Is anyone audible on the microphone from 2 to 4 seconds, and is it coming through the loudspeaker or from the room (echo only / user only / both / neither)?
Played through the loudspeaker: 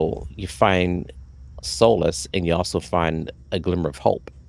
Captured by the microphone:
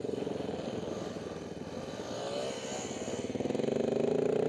neither